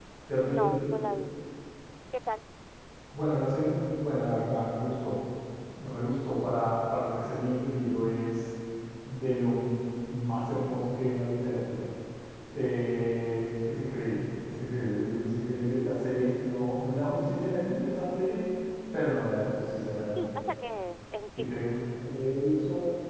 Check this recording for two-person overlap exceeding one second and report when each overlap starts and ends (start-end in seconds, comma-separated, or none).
none